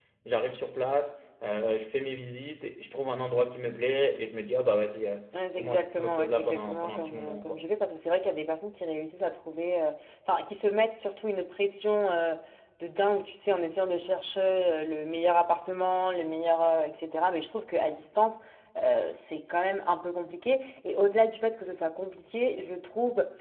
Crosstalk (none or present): present